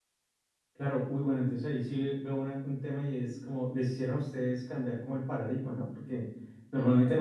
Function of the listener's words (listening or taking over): listening